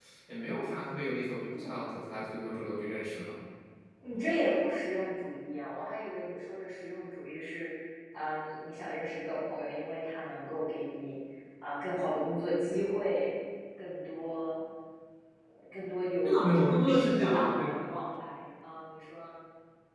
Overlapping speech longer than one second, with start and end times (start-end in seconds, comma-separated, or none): 16.2-17.5